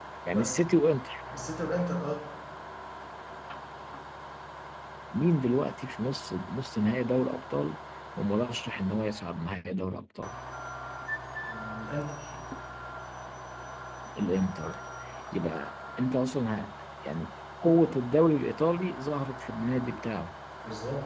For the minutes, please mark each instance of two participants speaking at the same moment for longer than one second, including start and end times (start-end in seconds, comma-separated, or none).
none